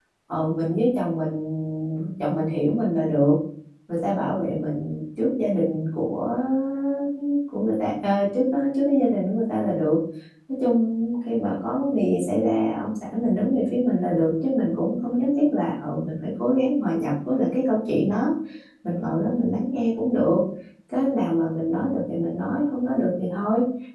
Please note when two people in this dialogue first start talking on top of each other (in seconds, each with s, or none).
none